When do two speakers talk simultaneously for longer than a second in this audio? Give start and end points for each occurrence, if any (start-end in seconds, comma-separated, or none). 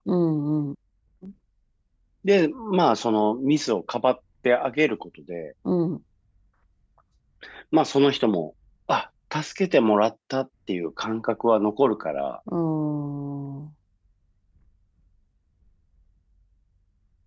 none